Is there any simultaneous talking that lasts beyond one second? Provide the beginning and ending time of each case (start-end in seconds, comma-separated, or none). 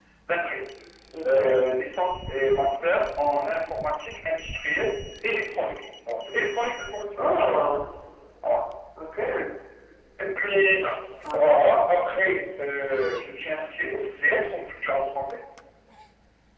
none